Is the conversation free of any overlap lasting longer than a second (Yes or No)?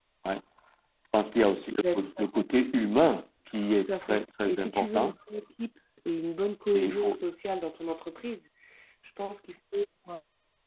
No